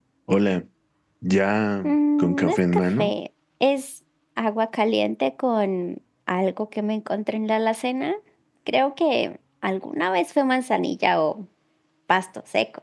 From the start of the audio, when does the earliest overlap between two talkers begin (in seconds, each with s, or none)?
1.8 s